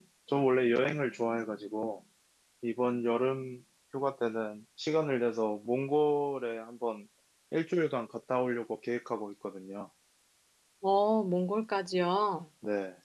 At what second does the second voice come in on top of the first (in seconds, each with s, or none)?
none